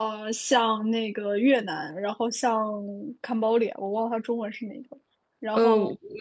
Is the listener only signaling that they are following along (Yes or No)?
No